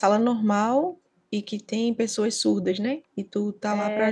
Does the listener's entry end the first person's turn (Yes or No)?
Yes